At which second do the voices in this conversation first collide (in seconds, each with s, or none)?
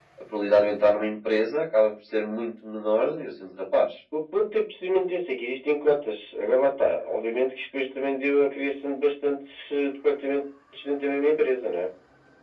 none